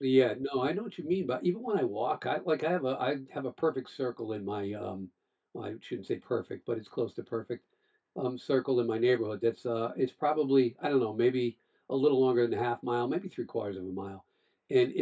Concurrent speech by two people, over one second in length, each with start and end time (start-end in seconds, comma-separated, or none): none